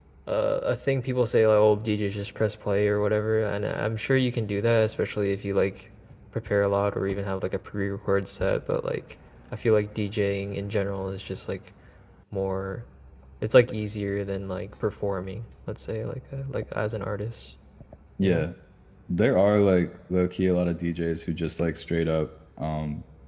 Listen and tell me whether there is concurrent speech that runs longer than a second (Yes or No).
No